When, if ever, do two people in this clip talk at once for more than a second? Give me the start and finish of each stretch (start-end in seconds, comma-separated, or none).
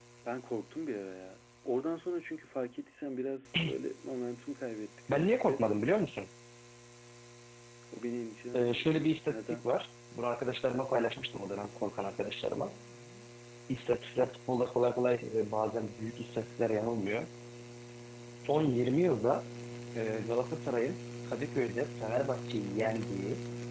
none